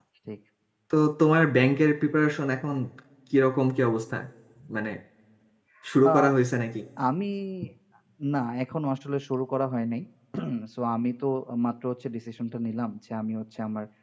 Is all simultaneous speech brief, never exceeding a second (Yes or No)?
Yes